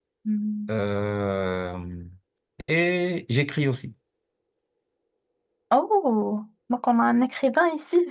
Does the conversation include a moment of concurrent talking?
No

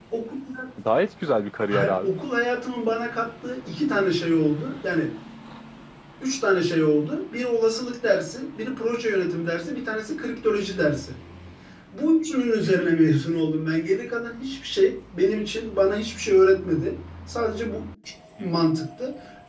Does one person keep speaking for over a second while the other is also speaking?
No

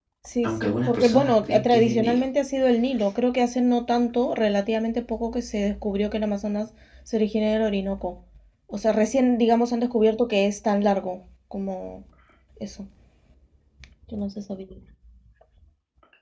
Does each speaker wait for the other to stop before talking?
No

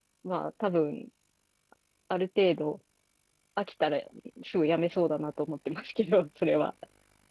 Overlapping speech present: No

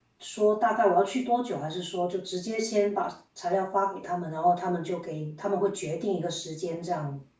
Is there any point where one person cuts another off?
No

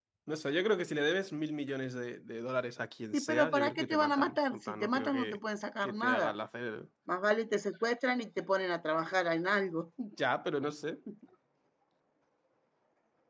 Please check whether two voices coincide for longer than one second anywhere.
Yes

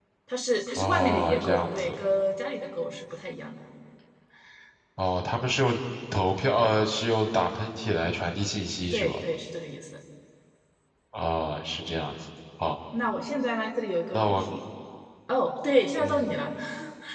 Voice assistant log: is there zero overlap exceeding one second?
No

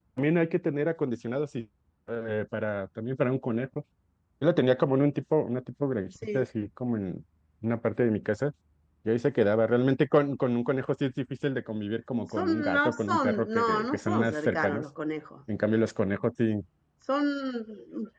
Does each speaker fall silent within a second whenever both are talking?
No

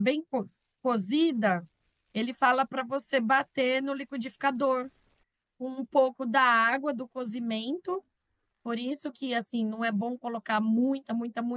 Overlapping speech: No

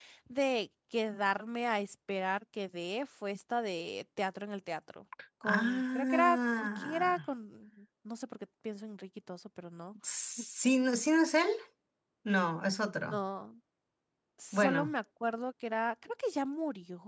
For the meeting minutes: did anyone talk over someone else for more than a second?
Yes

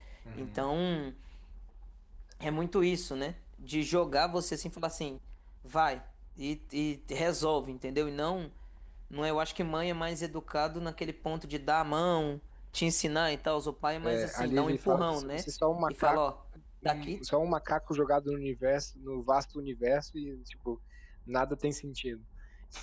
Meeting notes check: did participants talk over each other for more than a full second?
Yes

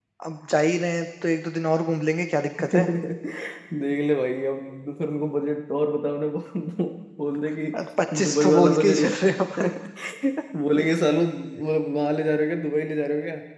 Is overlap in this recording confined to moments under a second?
No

